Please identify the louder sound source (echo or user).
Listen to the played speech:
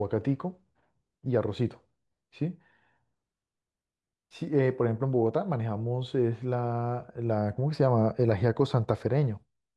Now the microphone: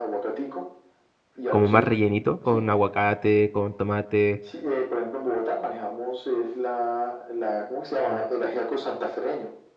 user